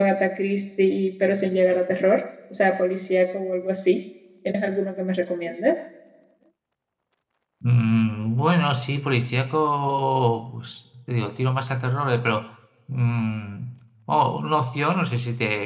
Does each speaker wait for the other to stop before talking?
Yes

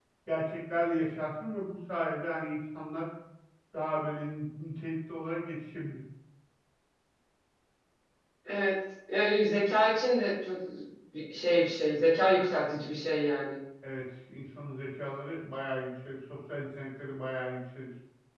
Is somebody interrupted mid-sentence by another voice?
No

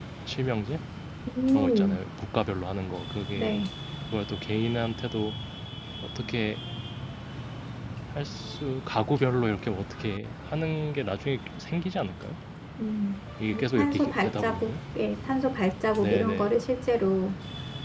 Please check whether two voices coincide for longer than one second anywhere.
Yes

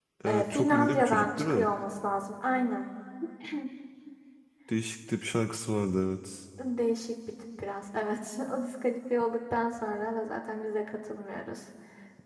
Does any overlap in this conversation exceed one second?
Yes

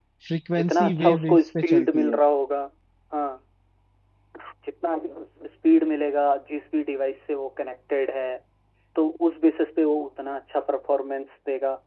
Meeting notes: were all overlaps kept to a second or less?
No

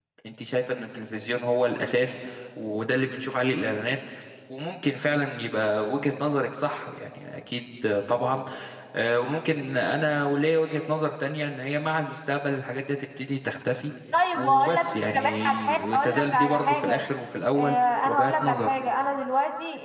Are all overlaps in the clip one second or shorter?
No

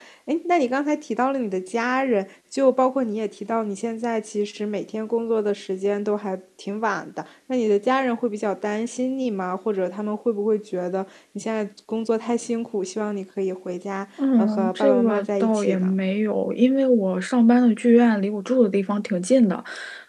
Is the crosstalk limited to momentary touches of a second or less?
No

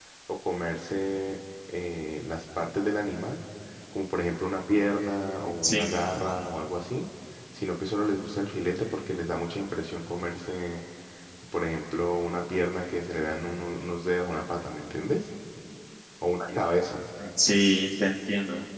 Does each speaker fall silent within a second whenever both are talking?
Yes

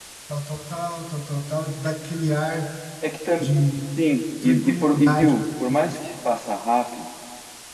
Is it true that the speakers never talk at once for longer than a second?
No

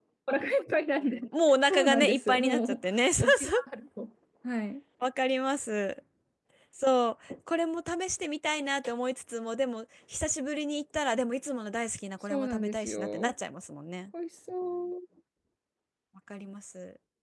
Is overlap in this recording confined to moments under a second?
No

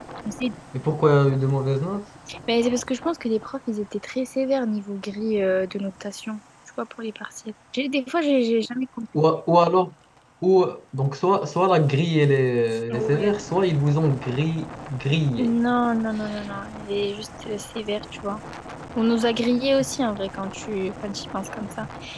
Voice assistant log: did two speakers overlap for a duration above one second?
No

